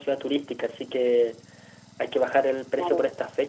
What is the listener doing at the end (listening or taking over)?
listening